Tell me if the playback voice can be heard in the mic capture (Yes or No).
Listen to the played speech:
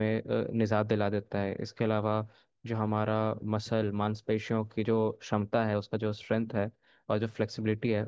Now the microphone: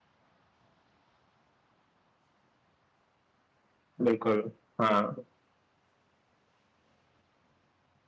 No